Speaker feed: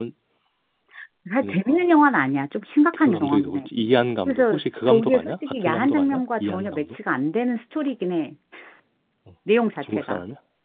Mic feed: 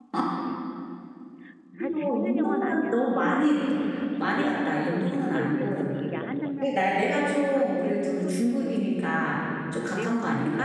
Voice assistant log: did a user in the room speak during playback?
Yes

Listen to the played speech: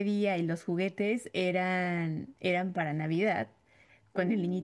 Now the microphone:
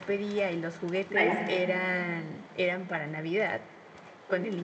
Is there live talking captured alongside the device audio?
Yes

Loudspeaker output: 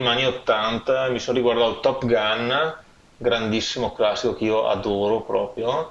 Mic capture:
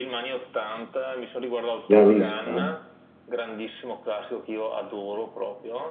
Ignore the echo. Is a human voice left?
Yes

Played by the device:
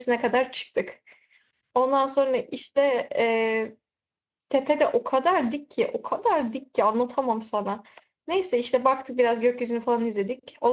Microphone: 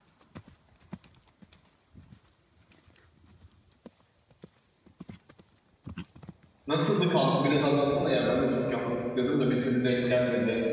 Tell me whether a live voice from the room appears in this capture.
Yes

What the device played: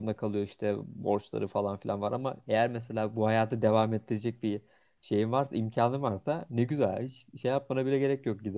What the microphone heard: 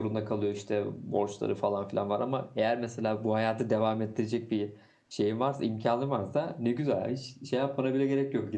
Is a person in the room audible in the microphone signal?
No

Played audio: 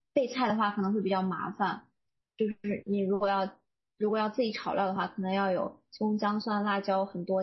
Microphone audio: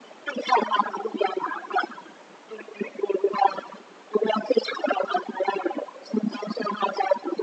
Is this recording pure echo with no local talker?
Yes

